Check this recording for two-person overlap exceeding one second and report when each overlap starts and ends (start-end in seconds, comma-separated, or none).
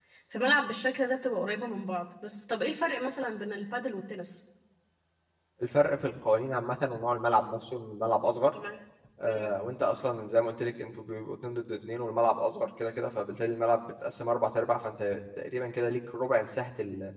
none